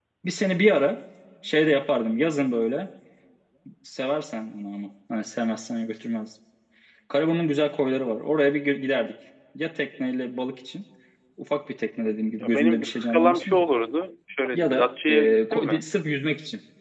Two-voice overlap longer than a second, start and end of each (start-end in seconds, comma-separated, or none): 12.1-13.6, 14.5-15.8